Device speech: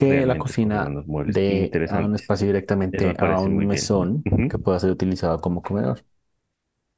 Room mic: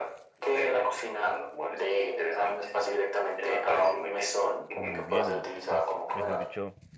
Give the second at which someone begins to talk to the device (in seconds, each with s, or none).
4.7 s